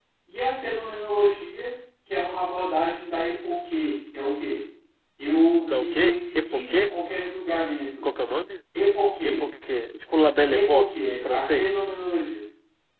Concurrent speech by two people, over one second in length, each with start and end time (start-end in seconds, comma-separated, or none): 5.6-6.9, 10.6-11.8